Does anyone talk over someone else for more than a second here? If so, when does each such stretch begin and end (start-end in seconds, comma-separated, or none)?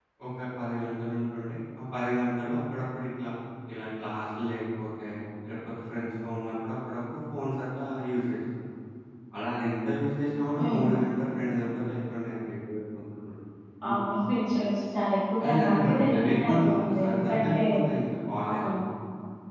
15.4-17.6